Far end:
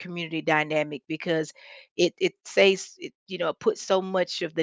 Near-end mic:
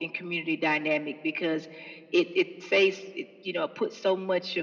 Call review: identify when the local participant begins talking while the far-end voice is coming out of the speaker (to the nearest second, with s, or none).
none